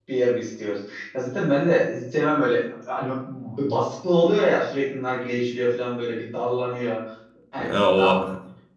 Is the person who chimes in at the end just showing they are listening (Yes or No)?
Yes